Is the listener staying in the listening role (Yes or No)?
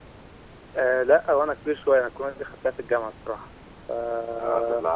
No